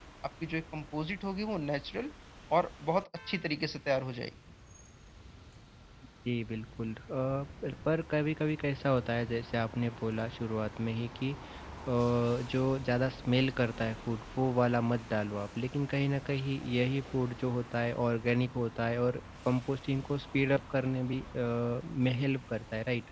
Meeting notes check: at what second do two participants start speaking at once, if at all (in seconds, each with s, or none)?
none